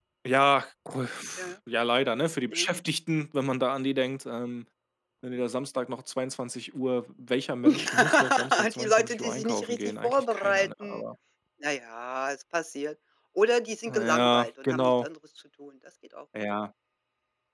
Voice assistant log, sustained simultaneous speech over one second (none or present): present